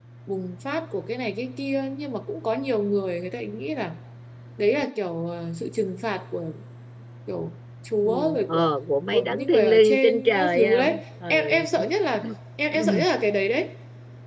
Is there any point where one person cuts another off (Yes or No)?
Yes